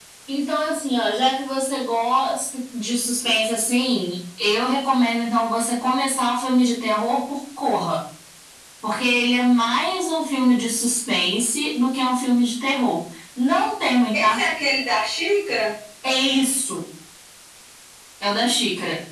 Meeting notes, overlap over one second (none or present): none